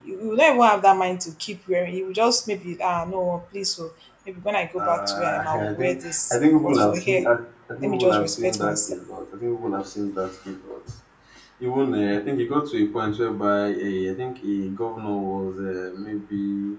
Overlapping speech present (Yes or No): Yes